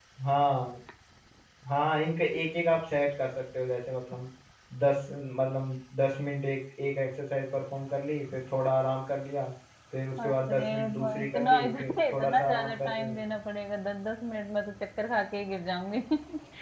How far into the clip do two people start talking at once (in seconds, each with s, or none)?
10.2 s